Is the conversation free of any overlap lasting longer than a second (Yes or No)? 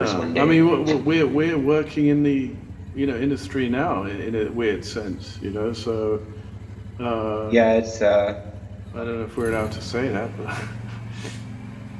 Yes